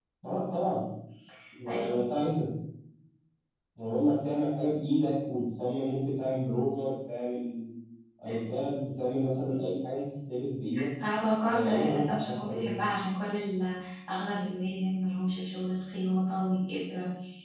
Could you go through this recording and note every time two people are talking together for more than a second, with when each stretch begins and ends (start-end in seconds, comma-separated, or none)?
11.5-12.7